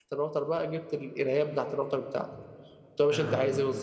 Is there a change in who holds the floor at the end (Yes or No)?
No